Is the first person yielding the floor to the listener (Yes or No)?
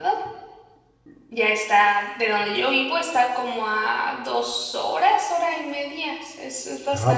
Yes